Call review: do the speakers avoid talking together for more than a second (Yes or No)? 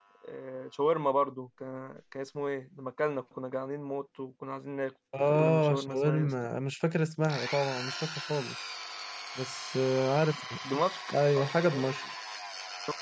No